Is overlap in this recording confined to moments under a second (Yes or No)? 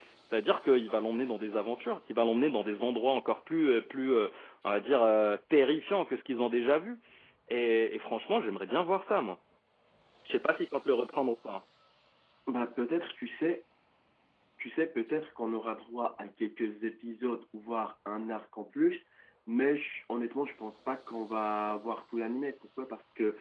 Yes